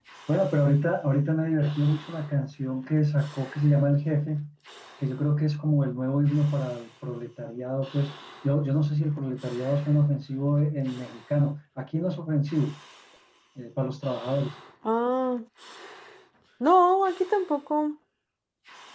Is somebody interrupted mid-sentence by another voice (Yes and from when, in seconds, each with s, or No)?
No